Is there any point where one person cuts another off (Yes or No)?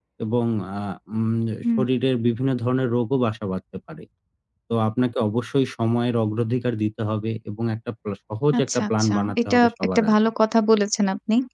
Yes